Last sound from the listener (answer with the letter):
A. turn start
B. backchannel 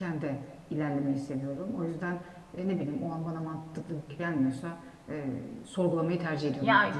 A